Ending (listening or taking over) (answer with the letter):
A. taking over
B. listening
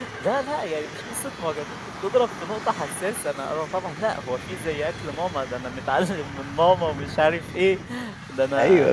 A